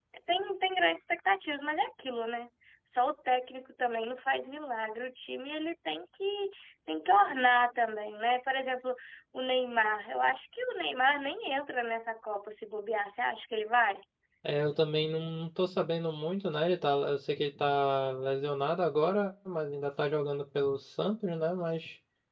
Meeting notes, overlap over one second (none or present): none